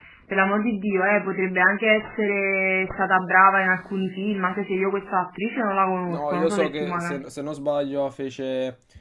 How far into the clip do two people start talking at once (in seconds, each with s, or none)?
6.1 s